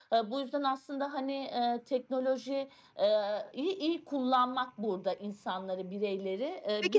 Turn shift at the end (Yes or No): Yes